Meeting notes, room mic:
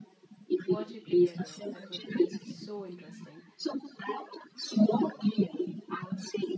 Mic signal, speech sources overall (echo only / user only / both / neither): both